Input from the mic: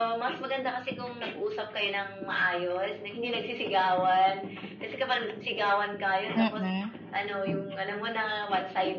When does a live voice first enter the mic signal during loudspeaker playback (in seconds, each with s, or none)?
6.4 s